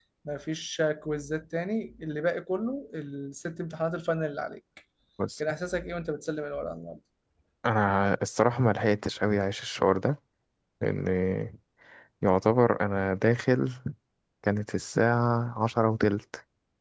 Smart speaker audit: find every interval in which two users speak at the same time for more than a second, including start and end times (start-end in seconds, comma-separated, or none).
none